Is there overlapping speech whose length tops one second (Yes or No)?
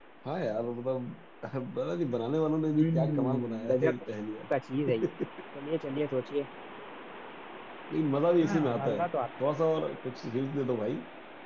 Yes